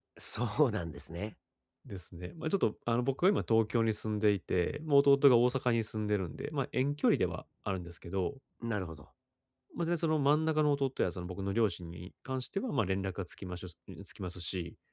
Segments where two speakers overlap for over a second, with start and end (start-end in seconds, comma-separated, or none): none